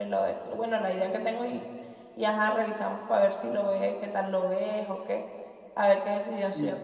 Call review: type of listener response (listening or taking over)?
taking over